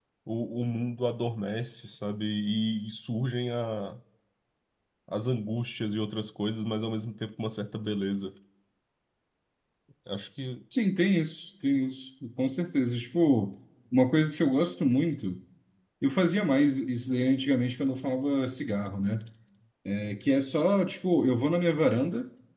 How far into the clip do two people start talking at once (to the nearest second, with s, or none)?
none